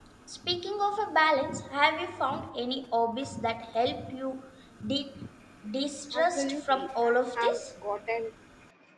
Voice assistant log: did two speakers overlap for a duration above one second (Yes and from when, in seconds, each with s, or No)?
Yes, from 6.1 s